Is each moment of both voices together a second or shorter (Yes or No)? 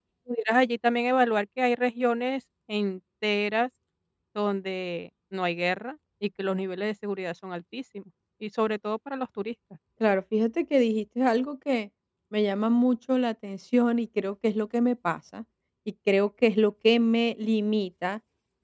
Yes